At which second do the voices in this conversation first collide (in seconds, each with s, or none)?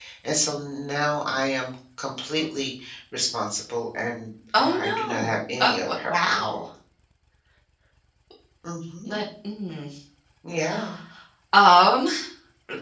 4.5 s